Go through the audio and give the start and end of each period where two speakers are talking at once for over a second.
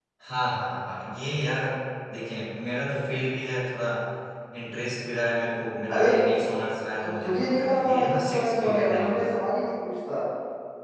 7.2-9.4

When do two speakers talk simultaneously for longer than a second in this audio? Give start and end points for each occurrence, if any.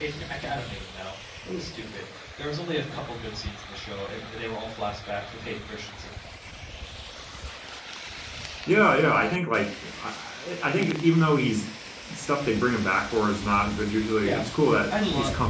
none

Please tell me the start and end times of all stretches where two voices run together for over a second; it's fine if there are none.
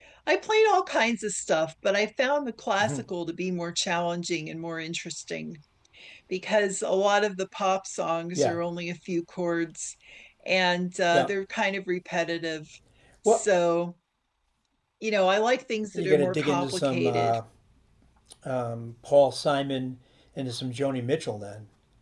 15.9-17.4

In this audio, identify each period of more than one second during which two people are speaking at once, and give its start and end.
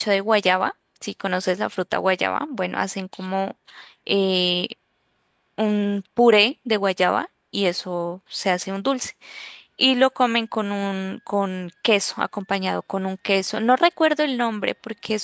none

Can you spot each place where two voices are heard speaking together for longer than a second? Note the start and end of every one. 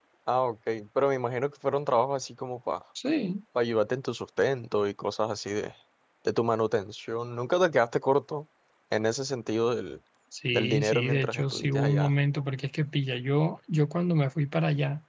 10.5-12.1

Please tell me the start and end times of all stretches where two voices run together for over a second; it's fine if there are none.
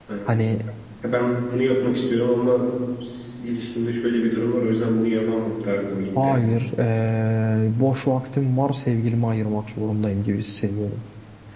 none

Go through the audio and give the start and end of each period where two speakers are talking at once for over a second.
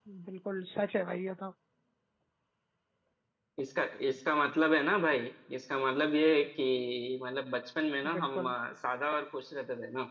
none

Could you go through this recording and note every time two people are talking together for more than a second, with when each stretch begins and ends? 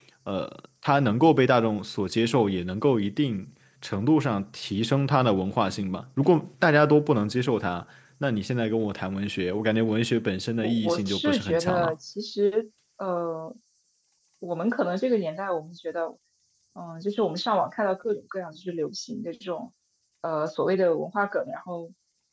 10.6-11.9

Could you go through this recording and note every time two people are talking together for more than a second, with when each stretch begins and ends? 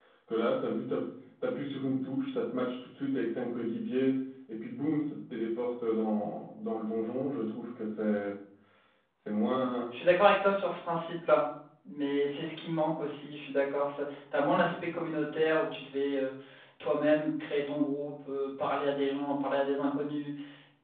none

